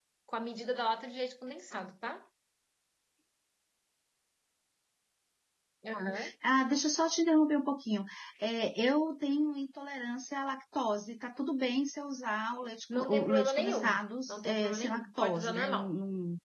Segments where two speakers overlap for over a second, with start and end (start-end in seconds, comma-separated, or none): 12.9-15.9